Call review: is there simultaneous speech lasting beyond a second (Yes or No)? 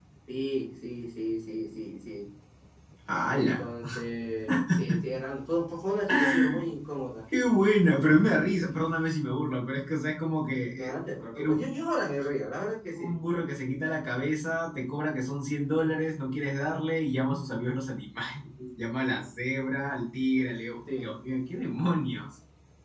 No